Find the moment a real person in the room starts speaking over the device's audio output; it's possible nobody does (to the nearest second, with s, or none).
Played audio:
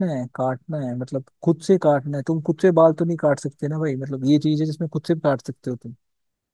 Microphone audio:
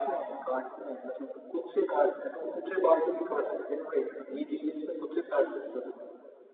none